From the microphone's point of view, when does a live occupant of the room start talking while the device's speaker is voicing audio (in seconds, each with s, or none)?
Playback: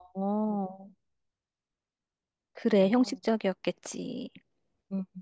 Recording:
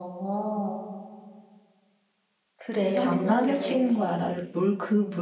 2.9 s